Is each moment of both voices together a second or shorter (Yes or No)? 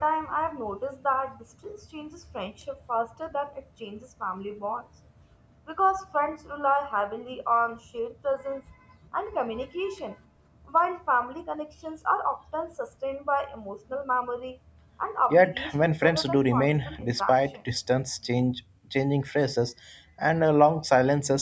No